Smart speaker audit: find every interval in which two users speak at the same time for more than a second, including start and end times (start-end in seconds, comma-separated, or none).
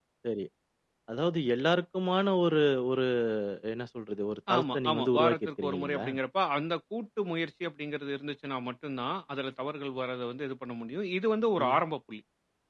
4.6-6.1